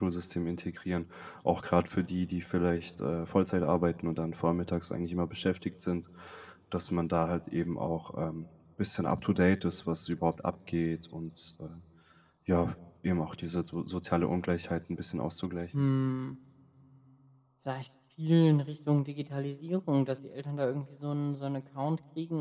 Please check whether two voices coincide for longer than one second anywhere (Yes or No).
No